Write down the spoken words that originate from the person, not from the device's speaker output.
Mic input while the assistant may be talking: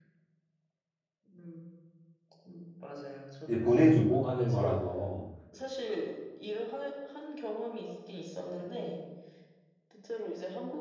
이제 보내주고 하는 거라서

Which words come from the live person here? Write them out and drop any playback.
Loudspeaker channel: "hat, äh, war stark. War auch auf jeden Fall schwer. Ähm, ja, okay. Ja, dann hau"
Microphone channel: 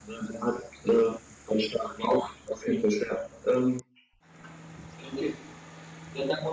none

